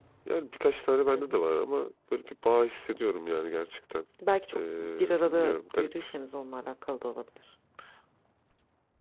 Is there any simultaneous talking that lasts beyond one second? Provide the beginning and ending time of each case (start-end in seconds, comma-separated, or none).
4.5-5.9